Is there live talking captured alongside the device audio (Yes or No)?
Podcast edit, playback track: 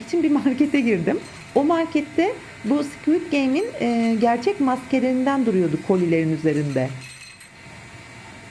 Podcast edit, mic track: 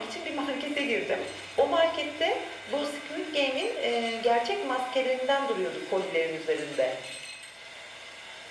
No